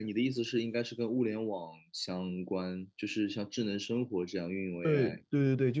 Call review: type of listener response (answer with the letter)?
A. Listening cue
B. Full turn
B